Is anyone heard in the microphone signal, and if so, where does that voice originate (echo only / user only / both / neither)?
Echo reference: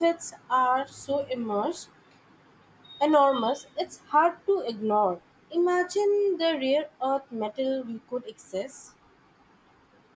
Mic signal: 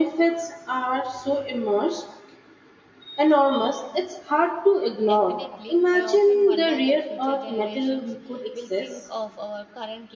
both